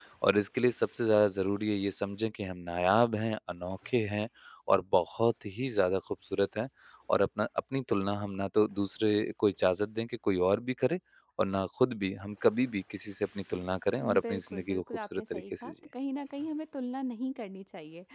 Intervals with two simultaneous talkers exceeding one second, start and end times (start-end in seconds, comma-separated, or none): 14.0-15.7